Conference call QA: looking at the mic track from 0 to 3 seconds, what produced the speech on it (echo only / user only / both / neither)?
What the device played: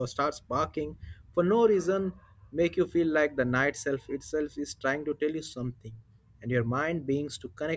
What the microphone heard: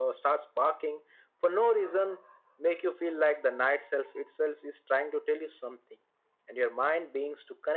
echo only